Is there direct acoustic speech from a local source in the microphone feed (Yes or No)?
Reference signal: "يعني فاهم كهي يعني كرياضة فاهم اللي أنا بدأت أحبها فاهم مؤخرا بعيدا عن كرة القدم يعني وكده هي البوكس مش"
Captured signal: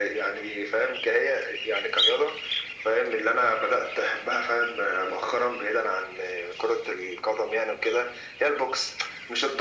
No